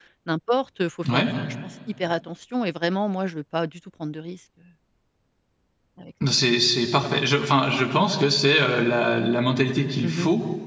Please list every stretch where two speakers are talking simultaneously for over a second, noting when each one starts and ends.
none

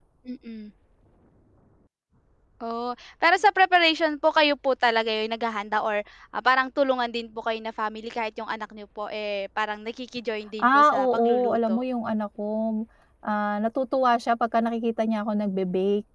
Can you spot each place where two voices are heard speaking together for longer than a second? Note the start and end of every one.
10.6-11.8

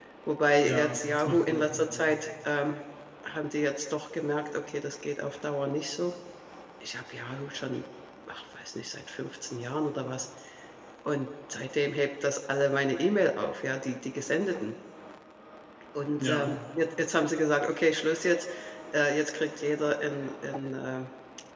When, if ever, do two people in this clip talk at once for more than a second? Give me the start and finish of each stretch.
0.6-2.1

